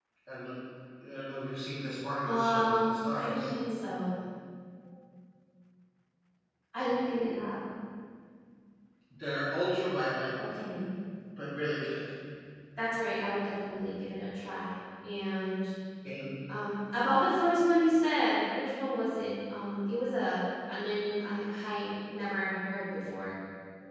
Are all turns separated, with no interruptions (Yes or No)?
No